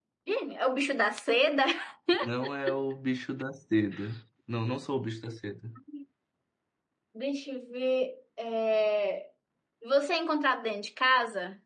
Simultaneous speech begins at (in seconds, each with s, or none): none